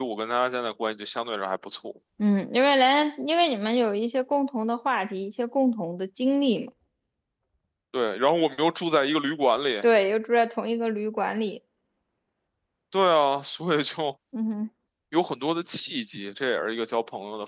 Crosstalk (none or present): none